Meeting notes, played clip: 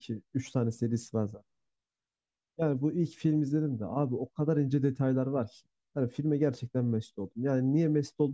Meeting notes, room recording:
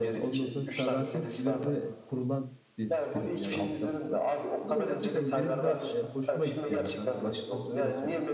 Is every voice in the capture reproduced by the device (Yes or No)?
No